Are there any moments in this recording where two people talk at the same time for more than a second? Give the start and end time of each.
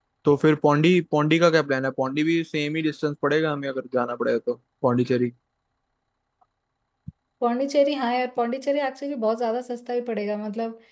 none

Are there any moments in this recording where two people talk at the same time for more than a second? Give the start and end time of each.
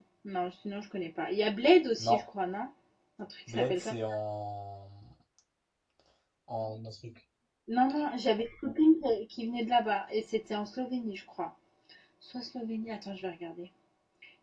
none

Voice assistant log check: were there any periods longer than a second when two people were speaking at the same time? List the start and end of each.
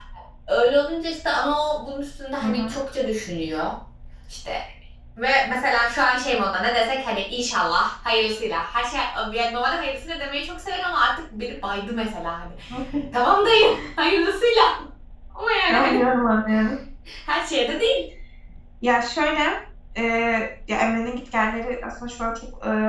none

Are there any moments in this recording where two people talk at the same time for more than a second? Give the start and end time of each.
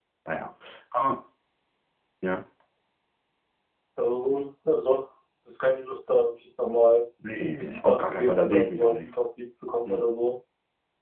7.6-9.1

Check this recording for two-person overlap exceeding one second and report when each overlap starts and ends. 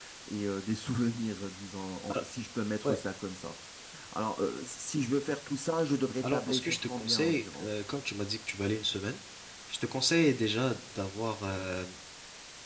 6.2-7.7

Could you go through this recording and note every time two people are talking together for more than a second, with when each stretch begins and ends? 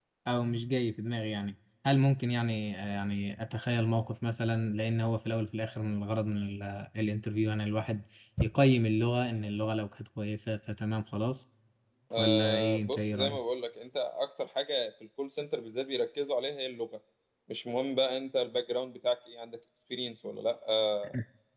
12.2-13.4

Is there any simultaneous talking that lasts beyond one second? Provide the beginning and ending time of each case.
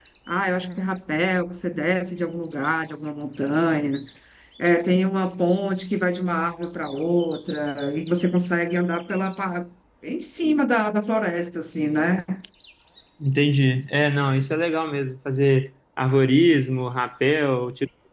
none

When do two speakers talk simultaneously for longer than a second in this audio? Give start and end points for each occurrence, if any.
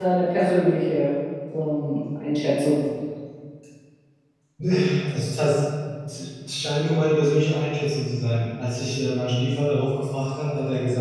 none

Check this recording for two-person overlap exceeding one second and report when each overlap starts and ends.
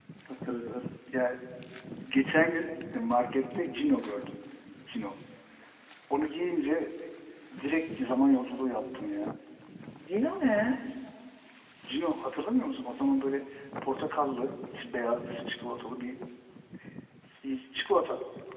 none

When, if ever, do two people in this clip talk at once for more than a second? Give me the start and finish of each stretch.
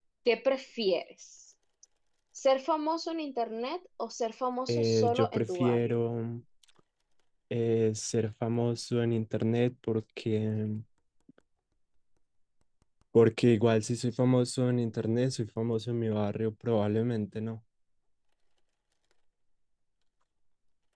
4.7-5.9

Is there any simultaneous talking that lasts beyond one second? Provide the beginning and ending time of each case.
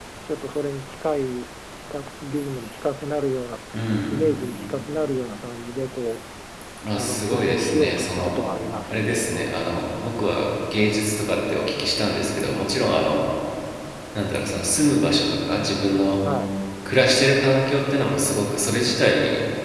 7.0-8.4

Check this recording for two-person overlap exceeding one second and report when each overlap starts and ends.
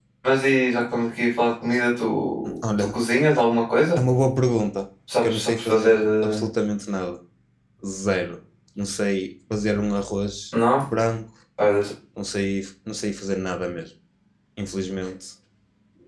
5.2-6.4

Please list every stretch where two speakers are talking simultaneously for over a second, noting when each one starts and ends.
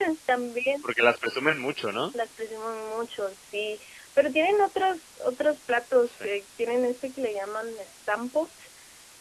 none

